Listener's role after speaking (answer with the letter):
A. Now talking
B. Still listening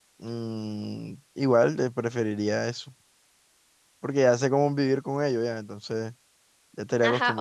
A